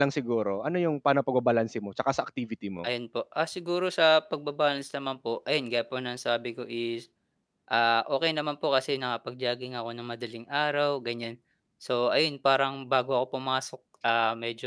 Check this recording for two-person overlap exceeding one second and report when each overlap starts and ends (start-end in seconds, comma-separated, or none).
none